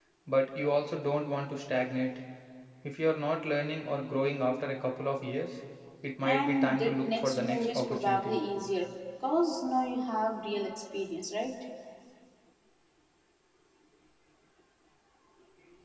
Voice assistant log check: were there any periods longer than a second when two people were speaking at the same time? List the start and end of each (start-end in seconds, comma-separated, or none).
6.2-8.4